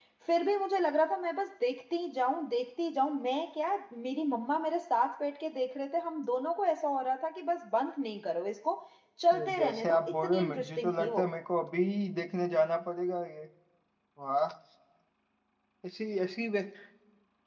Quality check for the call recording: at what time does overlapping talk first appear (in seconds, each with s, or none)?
9.6 s